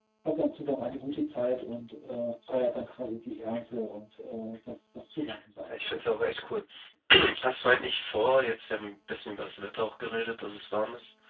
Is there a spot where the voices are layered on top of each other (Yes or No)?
No